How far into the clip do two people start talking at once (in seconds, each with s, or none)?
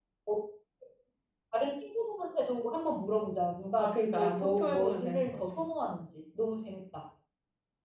3.8 s